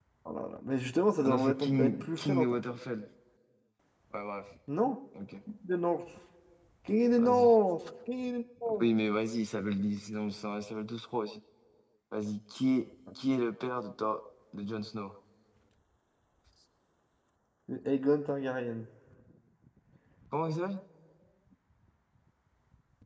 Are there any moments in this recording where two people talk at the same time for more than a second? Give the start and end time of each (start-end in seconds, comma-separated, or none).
1.2-2.5